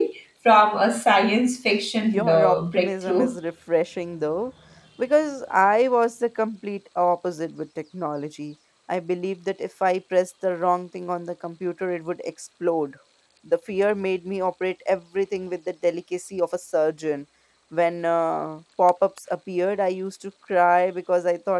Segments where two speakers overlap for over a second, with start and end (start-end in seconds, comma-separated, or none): 2.0-3.4